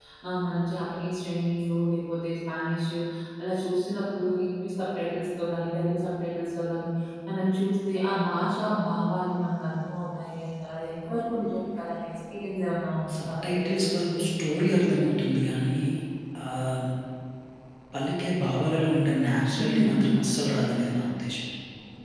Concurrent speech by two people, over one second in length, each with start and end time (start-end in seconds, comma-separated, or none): 13.2-15.2